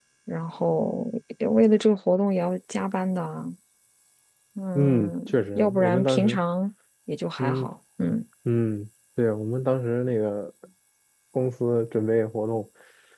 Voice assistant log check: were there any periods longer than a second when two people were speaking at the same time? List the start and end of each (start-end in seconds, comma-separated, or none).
4.8-6.4